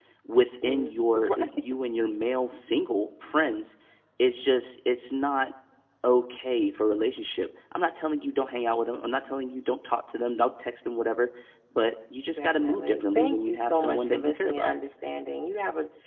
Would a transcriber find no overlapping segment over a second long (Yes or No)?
No